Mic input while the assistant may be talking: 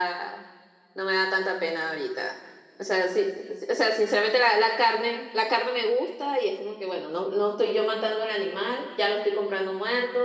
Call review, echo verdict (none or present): present